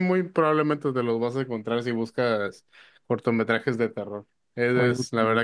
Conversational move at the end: listening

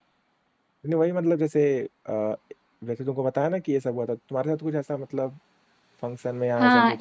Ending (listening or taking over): taking over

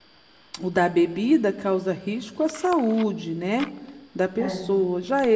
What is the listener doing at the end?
listening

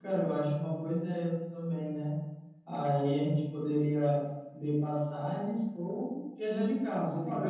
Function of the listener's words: taking over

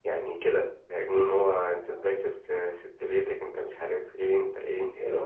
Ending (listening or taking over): taking over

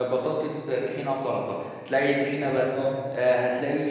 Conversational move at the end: listening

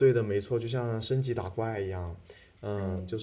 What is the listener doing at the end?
listening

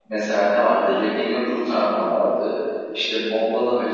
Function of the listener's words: listening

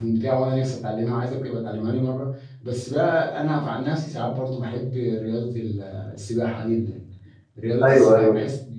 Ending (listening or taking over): listening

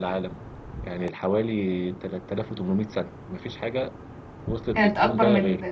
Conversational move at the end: taking over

